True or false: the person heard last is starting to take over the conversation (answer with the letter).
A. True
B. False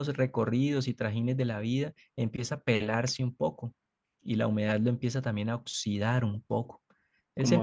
A